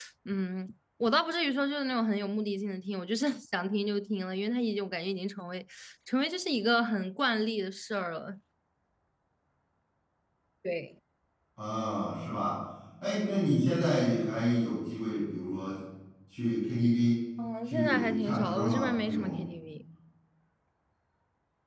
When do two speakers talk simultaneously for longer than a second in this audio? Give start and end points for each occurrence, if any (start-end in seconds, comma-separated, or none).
17.6-19.4